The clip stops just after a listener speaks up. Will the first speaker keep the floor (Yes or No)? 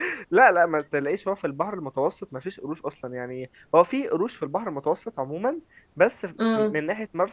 Yes